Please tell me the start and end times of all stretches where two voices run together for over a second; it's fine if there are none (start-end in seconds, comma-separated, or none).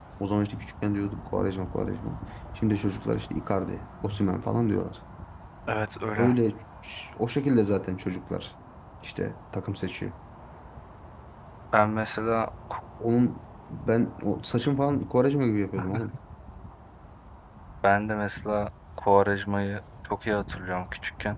none